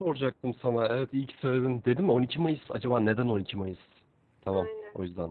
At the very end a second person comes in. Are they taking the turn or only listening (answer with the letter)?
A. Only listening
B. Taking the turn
B